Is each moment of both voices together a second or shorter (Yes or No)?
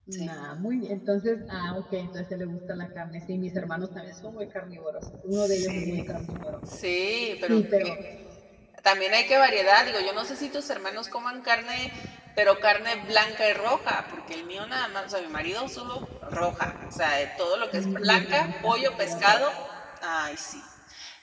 No